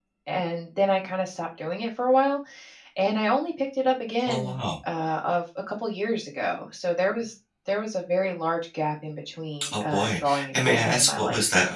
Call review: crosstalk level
present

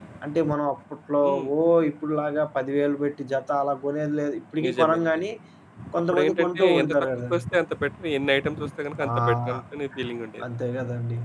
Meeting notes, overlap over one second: present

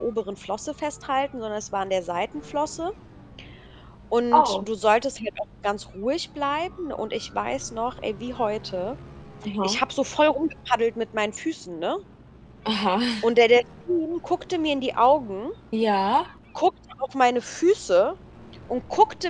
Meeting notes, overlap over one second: none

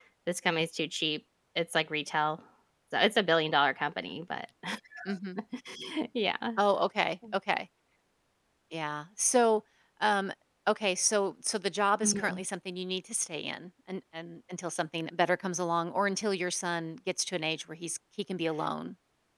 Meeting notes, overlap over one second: none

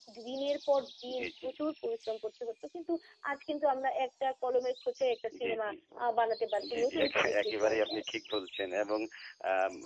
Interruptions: present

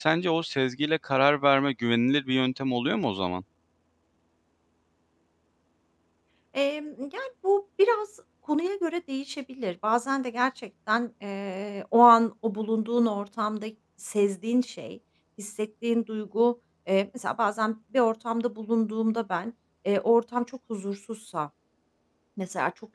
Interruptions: none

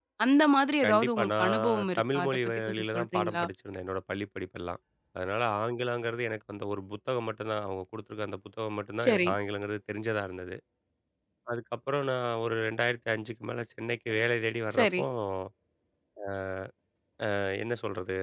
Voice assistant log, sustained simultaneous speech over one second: present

